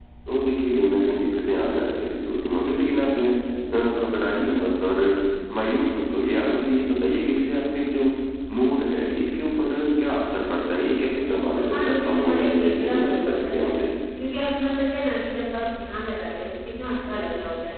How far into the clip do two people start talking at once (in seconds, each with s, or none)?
11.5 s